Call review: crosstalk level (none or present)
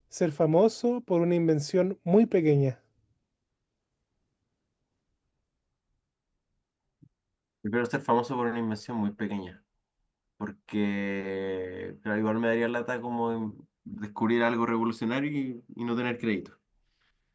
none